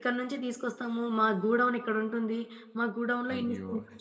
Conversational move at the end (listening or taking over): listening